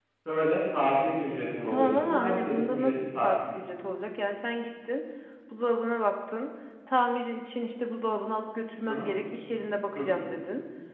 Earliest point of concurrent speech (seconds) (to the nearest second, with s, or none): 2 s